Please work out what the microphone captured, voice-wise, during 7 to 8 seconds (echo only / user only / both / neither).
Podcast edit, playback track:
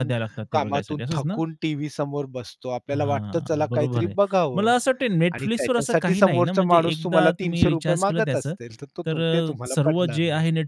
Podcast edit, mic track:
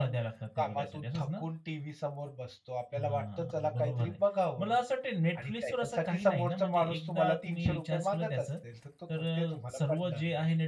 echo only